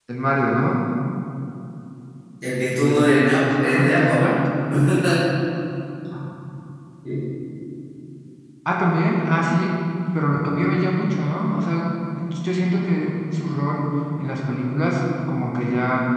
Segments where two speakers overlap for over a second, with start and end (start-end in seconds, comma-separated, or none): 2.6-4.3